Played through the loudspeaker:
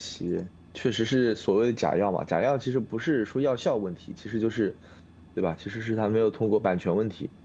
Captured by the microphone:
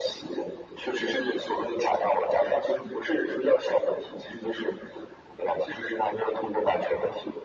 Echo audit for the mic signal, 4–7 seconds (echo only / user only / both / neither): echo only